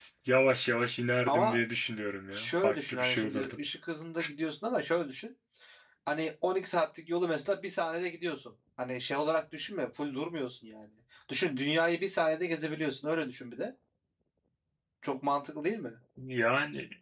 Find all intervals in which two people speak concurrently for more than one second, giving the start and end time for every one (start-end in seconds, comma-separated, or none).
2.3-3.6